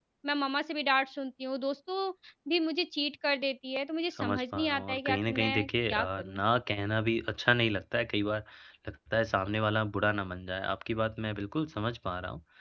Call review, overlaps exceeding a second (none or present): present